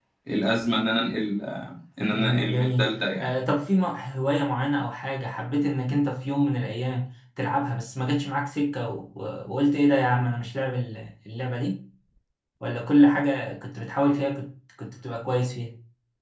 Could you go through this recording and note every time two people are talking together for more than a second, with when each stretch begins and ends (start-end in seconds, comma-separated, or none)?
2.1-3.3